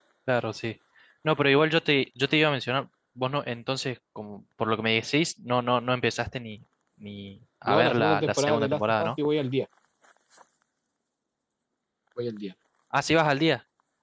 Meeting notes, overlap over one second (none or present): present